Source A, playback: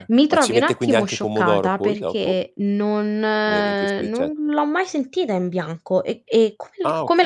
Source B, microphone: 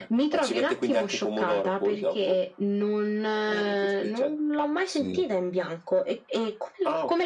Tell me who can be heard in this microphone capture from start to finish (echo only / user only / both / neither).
both